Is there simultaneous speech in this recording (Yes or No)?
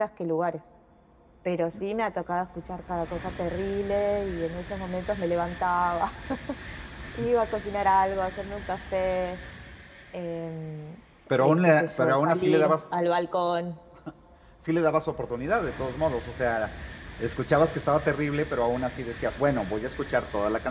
Yes